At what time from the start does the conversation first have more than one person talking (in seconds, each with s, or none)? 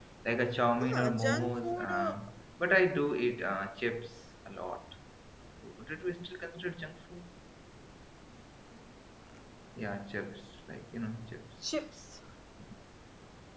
0.8 s